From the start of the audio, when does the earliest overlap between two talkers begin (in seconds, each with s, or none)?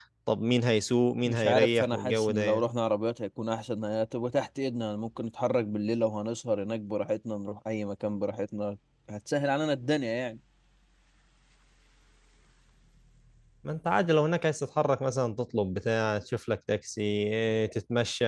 1.2 s